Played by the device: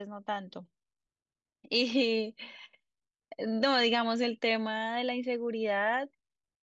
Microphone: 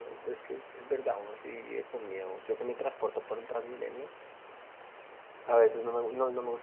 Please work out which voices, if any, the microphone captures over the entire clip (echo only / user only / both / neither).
user only